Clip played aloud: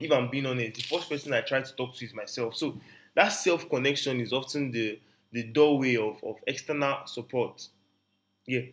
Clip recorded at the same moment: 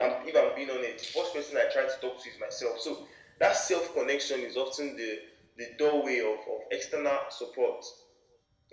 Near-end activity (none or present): none